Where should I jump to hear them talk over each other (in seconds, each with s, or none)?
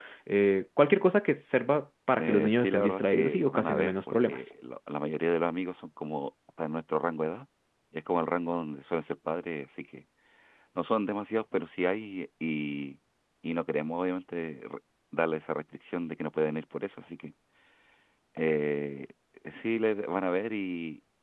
2.2 s